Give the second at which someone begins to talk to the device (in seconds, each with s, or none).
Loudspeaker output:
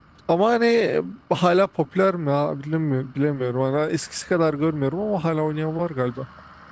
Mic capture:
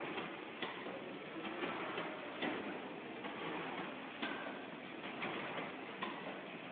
none